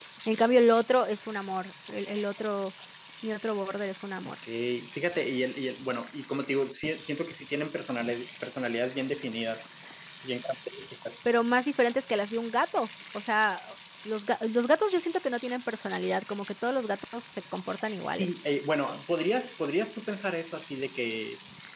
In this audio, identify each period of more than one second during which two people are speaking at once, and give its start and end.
none

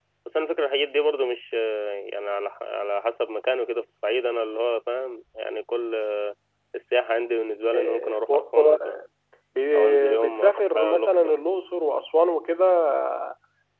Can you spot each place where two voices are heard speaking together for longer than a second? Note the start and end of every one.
7.7-9.0, 9.7-11.4

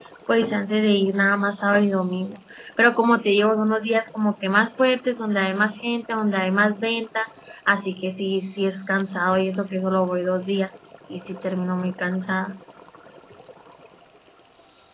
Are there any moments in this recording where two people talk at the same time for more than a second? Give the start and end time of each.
none

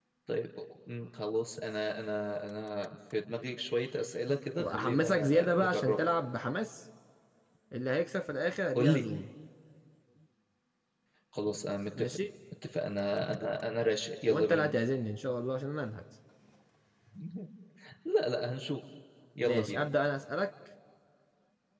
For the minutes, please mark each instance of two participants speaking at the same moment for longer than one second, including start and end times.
4.6-6.0

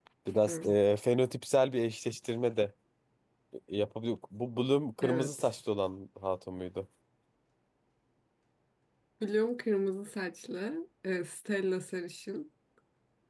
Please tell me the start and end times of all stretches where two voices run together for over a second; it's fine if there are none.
none

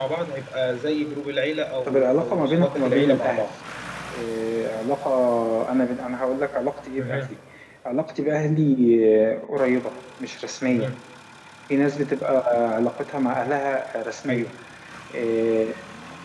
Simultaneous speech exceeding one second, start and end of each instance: 1.9-3.4

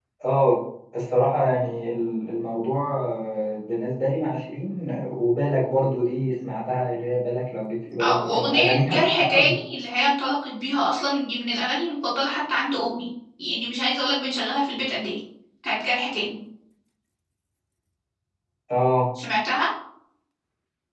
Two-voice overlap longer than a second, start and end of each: 8.0-9.4

